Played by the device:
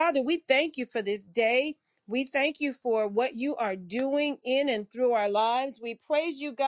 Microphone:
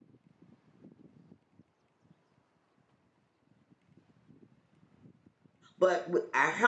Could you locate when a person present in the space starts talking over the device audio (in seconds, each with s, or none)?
5.8 s